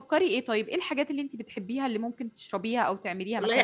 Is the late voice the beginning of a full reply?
Yes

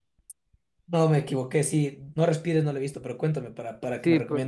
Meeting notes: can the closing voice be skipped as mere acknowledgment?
No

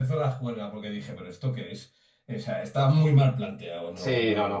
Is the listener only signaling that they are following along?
No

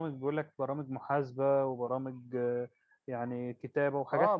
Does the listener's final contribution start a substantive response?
Yes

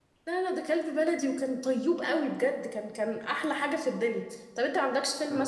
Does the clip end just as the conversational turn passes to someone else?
No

